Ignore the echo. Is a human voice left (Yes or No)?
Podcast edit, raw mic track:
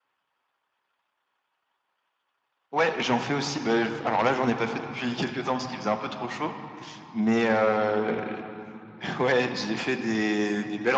No